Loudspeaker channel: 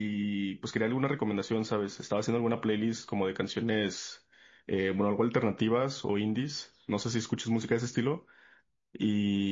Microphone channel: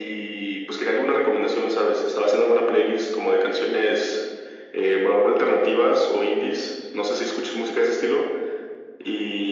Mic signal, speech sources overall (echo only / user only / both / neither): echo only